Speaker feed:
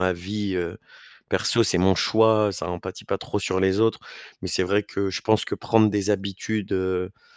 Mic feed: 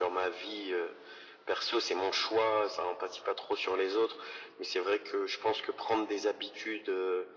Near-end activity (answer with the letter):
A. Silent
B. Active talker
A